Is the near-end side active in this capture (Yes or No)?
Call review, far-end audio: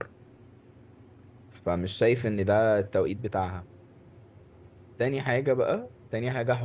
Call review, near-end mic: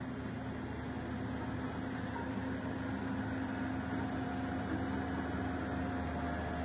No